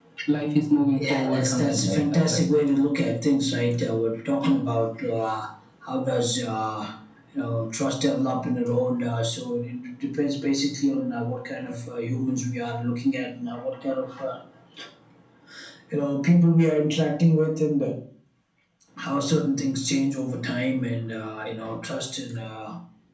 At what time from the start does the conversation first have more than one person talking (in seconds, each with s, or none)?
1.0 s